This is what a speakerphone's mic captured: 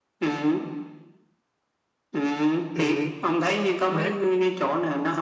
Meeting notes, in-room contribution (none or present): present